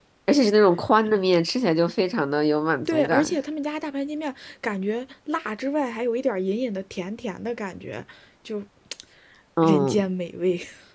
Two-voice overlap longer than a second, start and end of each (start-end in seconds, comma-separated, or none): none